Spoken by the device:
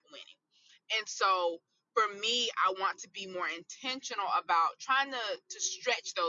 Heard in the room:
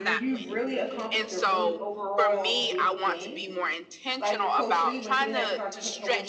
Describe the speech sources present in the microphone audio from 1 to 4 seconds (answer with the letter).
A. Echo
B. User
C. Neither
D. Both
D